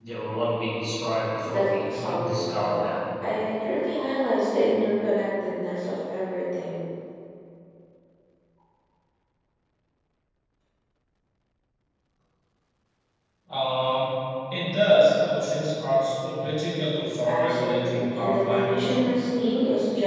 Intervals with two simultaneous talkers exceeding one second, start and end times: 1.5-2.8, 17.3-19.1

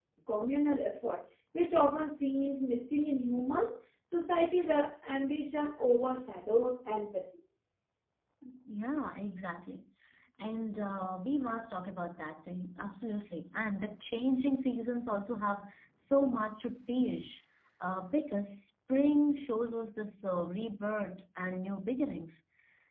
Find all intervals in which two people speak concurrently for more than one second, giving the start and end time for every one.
none

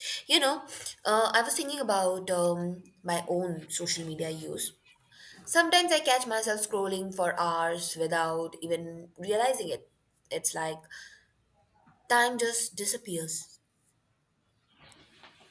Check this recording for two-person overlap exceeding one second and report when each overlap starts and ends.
none

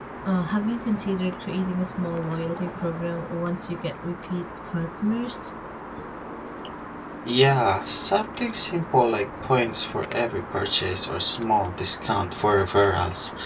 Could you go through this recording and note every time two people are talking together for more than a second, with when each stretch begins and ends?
none

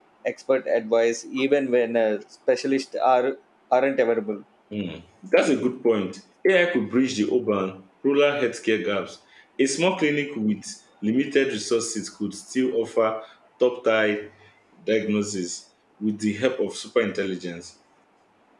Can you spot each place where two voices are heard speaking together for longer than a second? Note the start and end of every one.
none

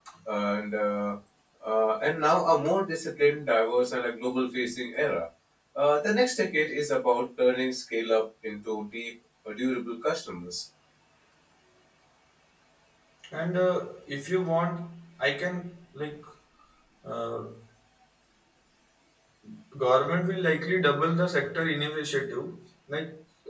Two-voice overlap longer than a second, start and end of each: none

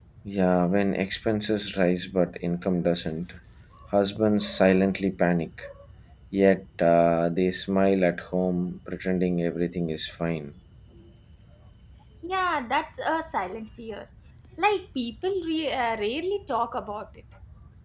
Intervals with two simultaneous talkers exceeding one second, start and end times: none

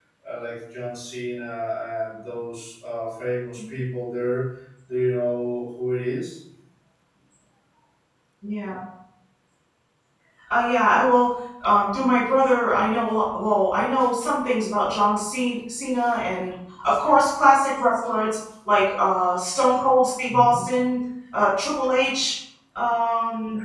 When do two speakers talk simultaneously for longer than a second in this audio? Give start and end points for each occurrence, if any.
none

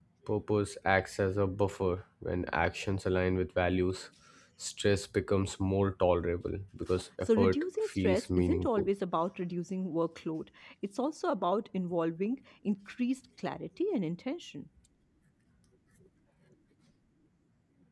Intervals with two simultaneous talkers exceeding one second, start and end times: 7.2-8.9

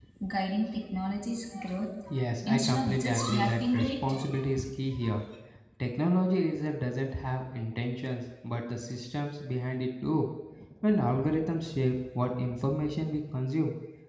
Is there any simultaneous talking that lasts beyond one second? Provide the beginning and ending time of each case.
2.5-4.1

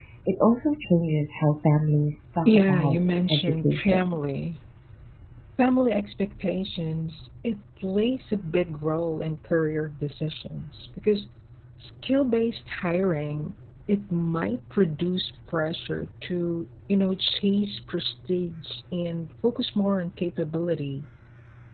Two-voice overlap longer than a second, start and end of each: 2.5-4.2

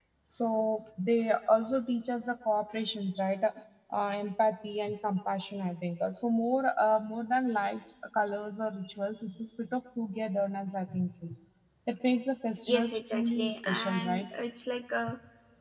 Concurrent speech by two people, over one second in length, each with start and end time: 12.7-14.3

